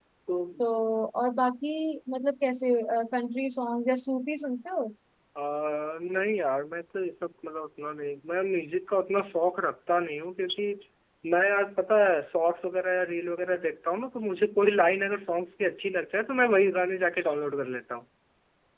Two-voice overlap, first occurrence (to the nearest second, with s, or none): none